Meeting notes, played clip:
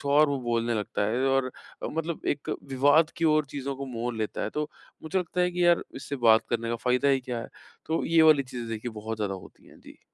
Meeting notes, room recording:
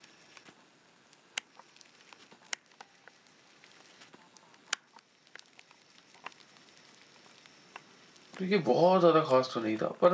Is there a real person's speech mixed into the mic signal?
Yes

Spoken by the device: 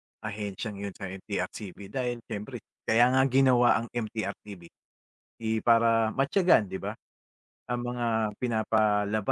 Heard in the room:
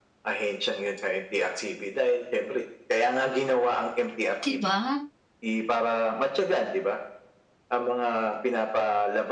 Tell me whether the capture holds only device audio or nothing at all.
No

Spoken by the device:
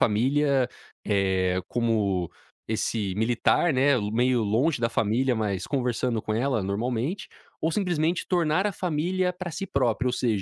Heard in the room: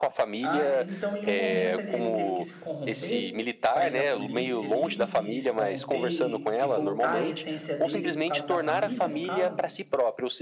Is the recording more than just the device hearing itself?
Yes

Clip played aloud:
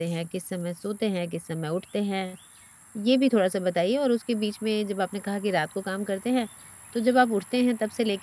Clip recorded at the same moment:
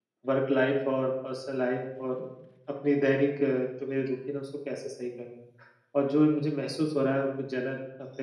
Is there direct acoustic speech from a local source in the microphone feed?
Yes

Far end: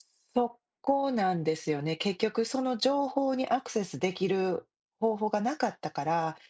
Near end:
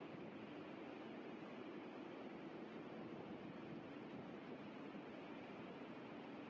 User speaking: No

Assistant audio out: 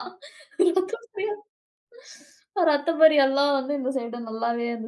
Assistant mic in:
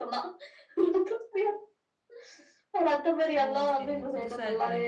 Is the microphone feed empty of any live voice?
No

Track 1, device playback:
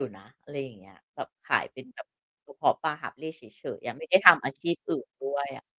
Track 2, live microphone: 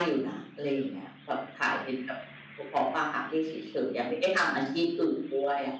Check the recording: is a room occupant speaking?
No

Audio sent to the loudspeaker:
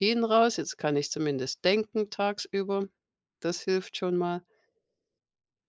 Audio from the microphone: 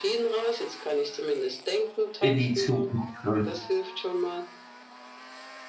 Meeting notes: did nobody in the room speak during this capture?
No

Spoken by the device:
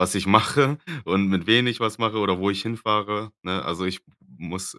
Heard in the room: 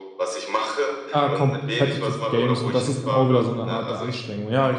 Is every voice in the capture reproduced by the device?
No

